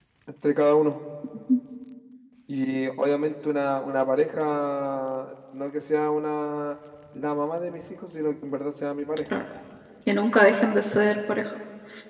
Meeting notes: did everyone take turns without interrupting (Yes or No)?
Yes